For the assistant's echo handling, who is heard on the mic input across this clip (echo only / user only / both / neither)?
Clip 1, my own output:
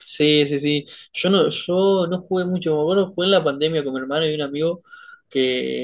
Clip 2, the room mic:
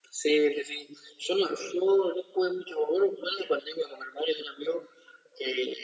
echo only